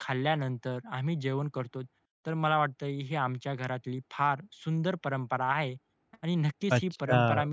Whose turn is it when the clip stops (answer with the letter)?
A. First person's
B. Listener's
A